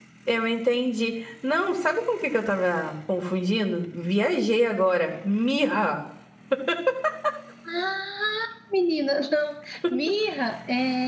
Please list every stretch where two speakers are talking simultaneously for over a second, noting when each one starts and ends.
none

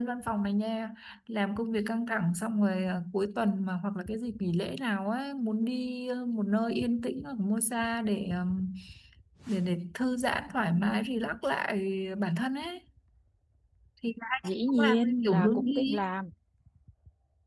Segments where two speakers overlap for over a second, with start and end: 14.4-16.0

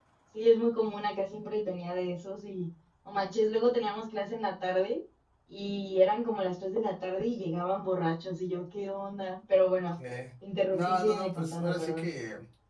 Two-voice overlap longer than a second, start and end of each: 10.7-12.1

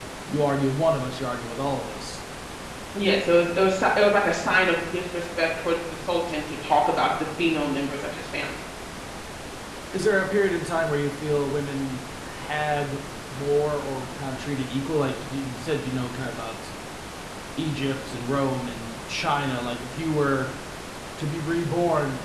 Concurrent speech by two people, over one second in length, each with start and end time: none

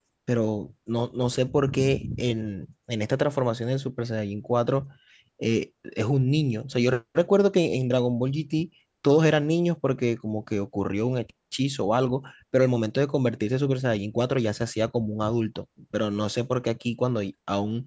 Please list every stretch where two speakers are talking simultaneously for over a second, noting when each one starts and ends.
none

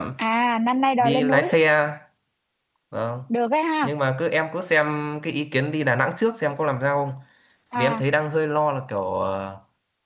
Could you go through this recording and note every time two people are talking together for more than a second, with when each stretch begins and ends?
none

